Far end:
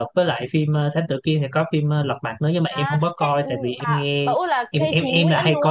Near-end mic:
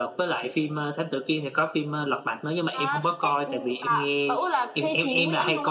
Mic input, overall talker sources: echo only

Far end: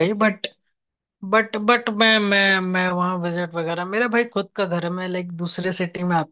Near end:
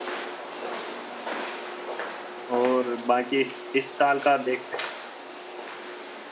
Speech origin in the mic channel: user only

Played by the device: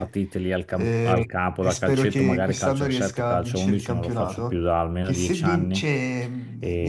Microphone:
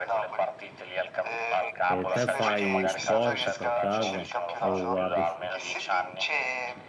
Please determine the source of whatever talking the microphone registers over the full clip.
both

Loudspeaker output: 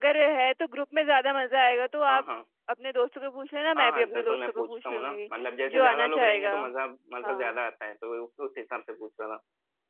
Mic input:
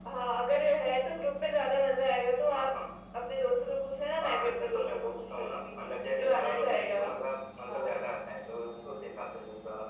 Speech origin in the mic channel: echo only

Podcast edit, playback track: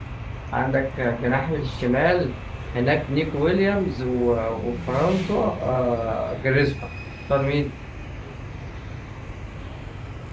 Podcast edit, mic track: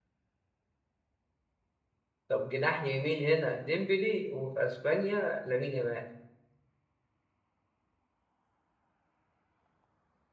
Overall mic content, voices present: user only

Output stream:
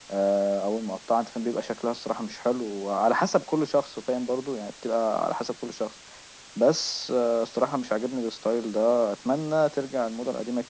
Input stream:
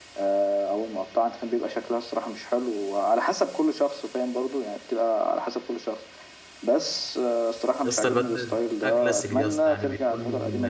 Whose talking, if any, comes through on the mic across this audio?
both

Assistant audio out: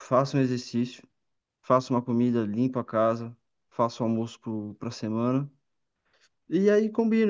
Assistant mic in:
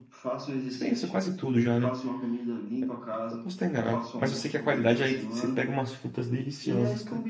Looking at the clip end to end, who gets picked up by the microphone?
both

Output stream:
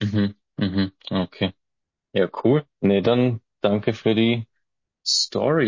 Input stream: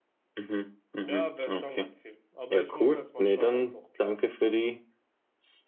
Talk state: both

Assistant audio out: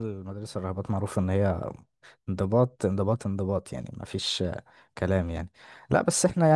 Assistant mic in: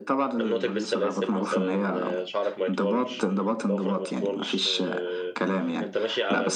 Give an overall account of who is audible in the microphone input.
both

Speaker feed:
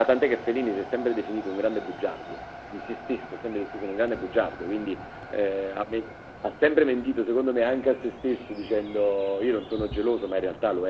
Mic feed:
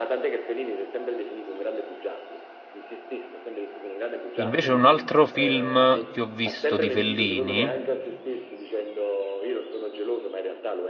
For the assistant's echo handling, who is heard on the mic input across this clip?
both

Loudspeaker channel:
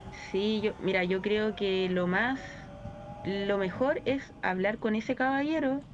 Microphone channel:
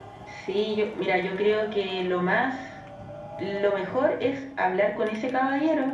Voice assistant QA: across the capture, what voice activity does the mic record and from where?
echo only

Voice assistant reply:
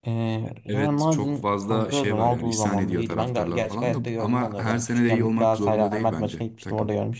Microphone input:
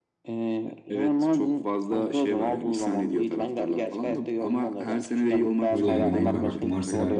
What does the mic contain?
both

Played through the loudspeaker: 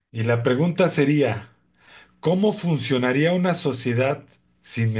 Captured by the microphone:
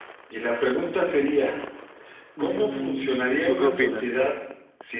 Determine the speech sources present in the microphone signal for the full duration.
both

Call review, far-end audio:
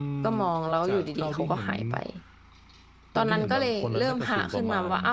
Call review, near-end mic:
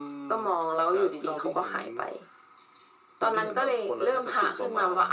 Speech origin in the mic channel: echo only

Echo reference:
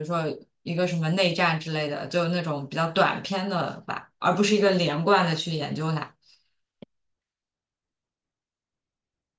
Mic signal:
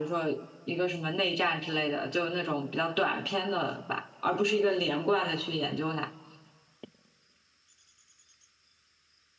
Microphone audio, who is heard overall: echo only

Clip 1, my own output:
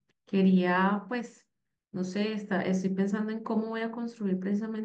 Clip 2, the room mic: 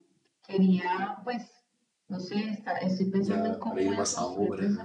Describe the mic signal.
both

